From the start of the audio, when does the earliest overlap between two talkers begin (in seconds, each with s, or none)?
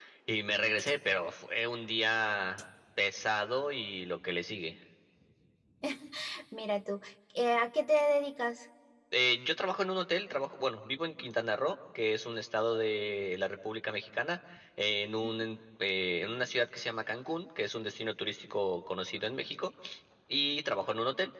none